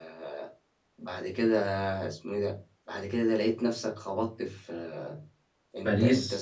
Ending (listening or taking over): listening